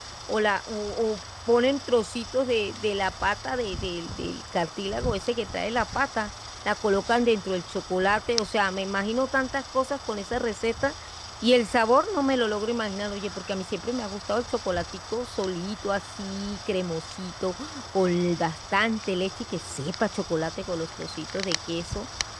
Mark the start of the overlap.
none

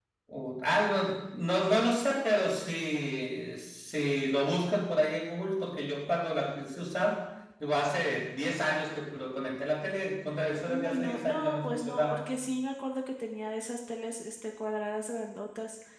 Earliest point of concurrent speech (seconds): 10.7 s

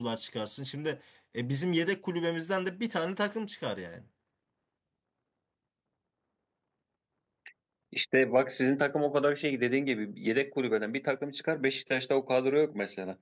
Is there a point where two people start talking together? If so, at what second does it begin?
none

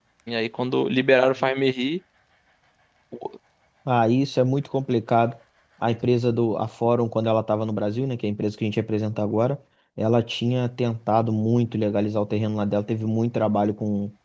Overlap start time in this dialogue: none

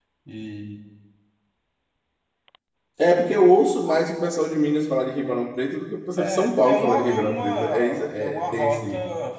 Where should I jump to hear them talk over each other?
6.2 s

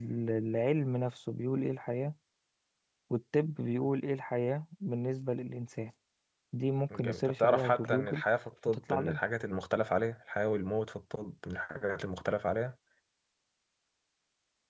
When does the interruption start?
6.9 s

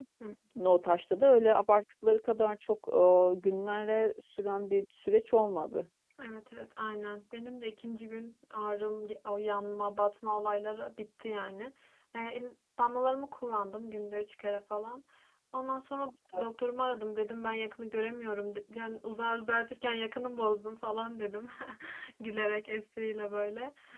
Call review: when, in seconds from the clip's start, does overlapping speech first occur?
none

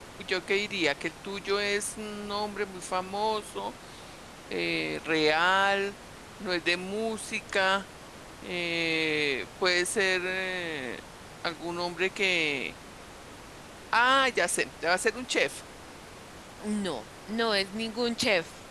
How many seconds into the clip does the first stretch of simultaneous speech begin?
none

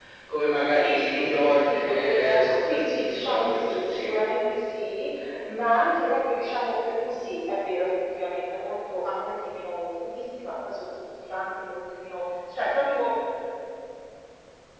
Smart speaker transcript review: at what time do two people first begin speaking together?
0.8 s

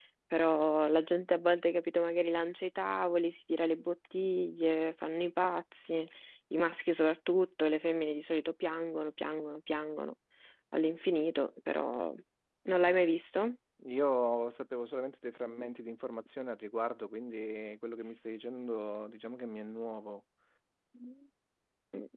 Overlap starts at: none

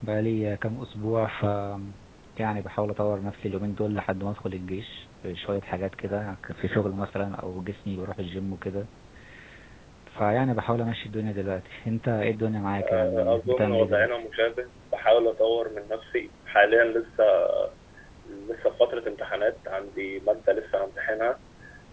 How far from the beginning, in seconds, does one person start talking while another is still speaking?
12.8 s

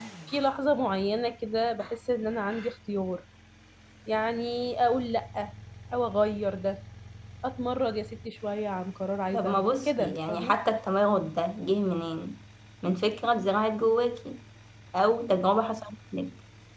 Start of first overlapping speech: 9.3 s

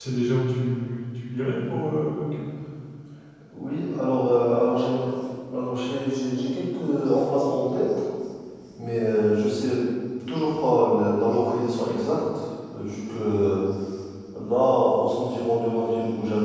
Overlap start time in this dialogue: none

